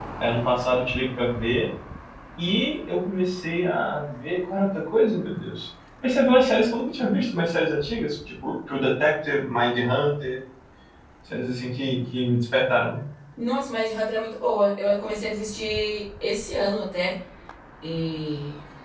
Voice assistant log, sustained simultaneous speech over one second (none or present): none